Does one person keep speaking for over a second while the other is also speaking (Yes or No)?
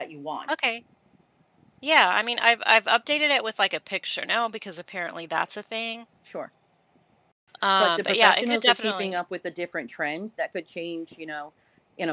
Yes